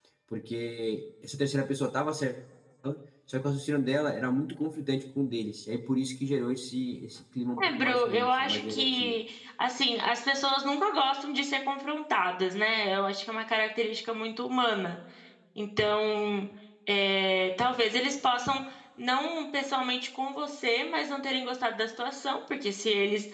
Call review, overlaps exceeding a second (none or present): present